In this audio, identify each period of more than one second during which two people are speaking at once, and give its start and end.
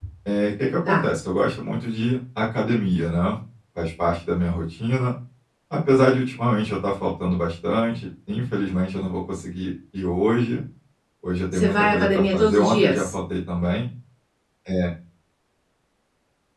11.5-13.1

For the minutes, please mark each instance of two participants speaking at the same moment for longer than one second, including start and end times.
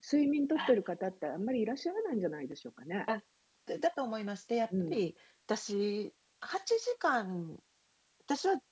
none

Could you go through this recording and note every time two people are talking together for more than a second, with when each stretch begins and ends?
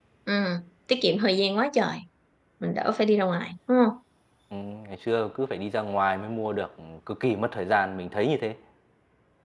none

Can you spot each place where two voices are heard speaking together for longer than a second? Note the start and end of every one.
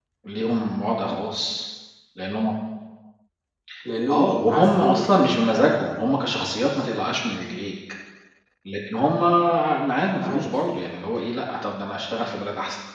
4.1-5.4

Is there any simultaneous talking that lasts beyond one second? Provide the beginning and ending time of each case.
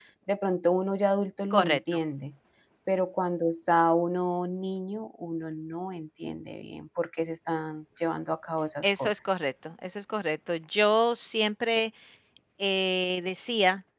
none

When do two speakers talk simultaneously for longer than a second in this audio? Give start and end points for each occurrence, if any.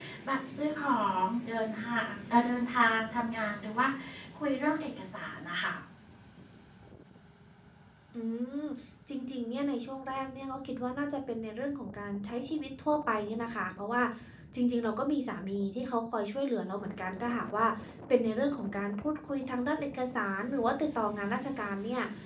none

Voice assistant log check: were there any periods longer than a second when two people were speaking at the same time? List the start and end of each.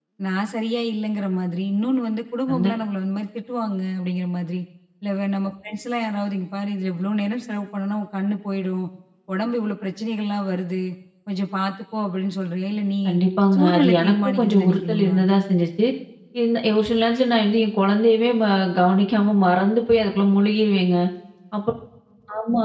13.6-15.2

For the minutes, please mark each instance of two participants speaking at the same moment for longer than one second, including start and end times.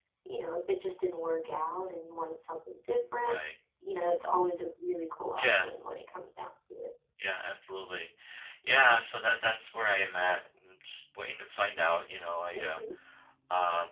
none

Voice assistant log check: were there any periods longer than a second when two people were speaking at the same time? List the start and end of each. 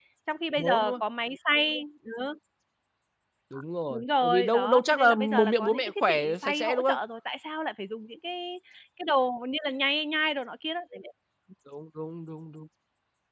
3.9-7.0

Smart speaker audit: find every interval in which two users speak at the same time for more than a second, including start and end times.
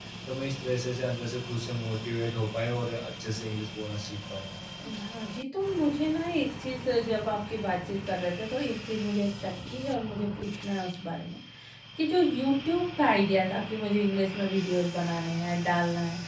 none

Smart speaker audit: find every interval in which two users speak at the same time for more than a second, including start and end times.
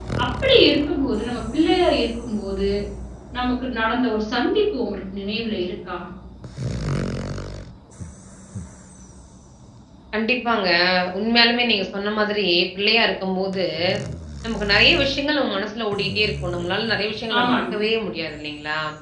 none

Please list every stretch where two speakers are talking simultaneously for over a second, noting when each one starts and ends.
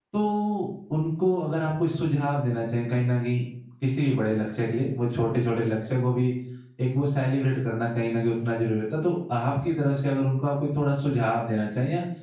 none

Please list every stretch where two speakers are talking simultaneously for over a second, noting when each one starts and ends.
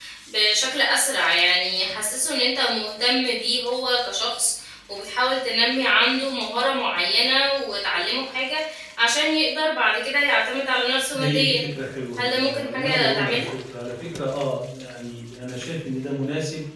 12.2-13.5

